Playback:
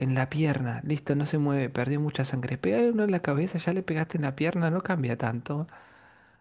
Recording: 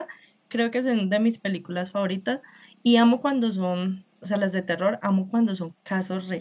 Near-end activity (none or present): present